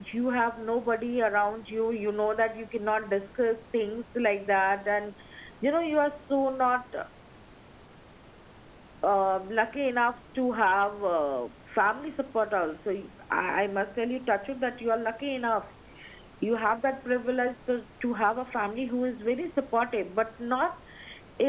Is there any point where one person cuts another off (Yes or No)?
No